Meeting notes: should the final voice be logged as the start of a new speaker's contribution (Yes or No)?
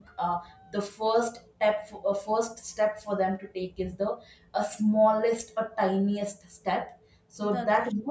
No